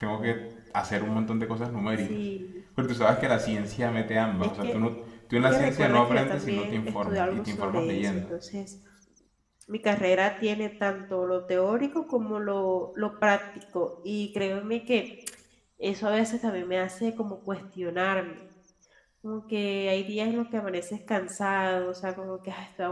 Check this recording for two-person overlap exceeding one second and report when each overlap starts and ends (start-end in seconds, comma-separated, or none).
5.5-8.3